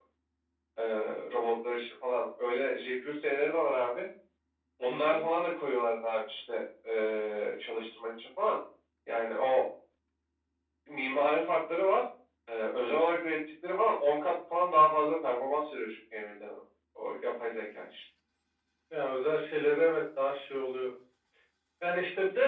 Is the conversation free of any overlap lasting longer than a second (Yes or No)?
Yes